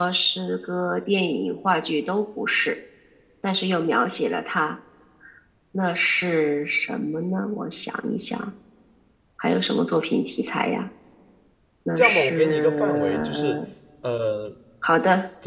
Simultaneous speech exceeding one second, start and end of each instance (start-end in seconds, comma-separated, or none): 12.0-13.6